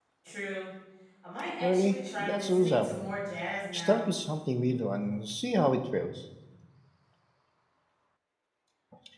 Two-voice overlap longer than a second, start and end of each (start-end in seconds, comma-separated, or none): 1.6-3.0